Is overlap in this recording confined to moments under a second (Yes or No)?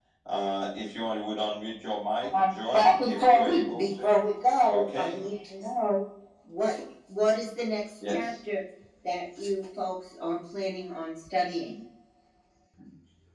No